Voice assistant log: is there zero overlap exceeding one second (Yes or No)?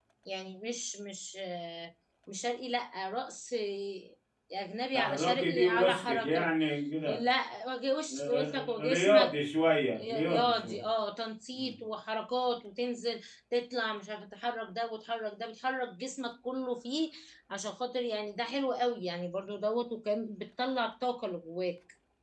No